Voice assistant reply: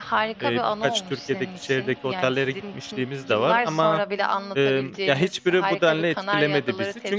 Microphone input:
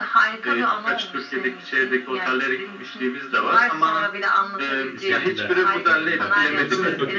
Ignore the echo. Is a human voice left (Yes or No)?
Yes